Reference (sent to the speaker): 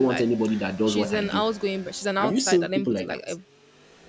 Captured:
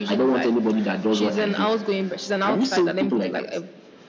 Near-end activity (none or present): none